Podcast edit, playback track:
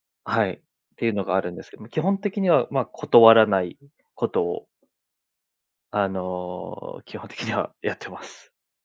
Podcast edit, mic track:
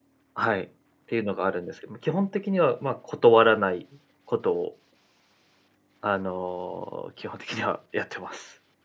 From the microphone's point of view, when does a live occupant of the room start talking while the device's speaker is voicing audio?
none

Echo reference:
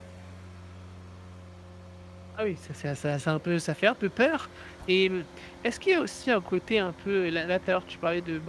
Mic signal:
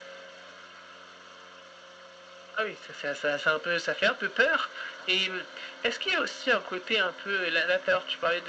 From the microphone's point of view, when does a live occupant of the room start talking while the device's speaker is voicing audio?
none

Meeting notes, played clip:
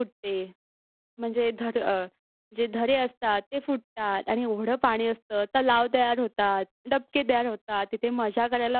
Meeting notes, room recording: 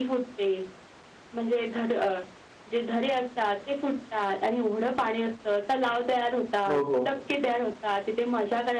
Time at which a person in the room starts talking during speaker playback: 6.7 s

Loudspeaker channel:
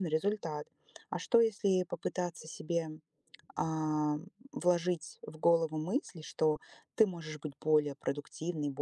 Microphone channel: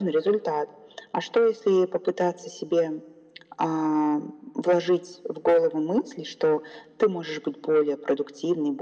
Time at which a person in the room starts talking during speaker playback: none

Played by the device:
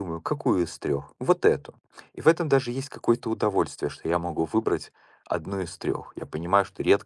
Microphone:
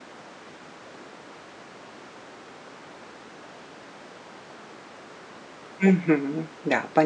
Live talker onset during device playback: 5.8 s

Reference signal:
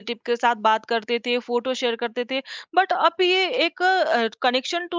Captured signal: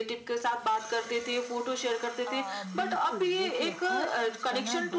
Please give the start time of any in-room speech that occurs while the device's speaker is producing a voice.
2.3 s

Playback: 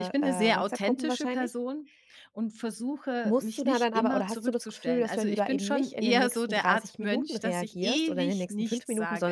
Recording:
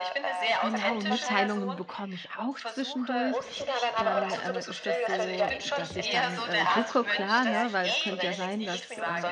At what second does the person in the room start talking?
0.6 s

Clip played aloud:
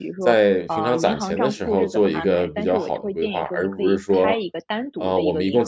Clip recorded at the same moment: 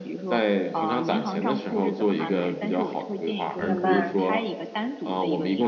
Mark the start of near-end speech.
3.6 s

